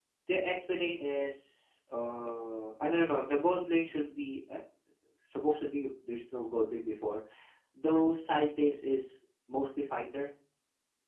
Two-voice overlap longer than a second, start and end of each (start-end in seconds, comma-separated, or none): none